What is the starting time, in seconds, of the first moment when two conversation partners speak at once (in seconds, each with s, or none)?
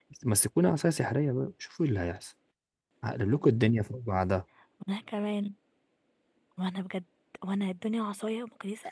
none